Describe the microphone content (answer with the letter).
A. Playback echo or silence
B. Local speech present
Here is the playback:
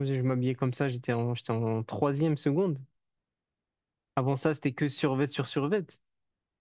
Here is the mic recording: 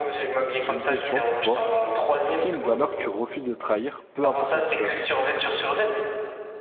B